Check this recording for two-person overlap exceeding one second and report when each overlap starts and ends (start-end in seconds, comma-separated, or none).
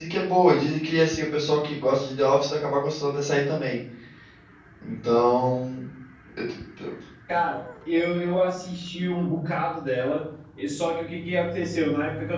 none